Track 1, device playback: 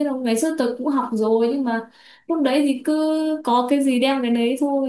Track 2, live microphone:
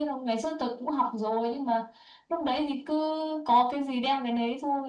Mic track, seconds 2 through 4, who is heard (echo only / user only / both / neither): echo only